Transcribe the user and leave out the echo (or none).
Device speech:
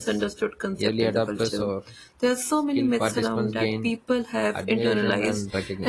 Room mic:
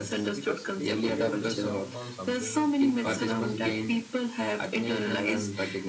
because people fear missing out on something culturally significant.